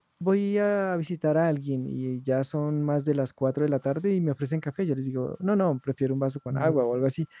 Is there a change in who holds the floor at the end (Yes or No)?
No